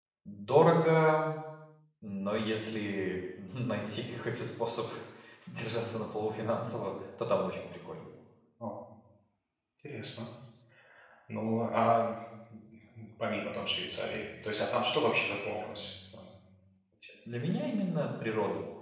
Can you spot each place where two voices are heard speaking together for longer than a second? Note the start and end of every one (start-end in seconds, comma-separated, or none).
none